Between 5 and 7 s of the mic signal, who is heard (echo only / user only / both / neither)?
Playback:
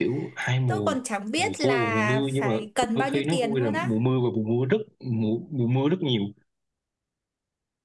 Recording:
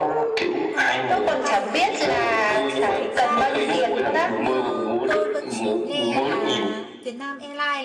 both